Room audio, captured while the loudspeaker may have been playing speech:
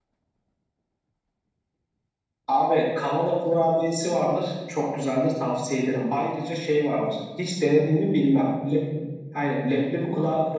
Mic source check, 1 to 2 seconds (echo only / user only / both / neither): neither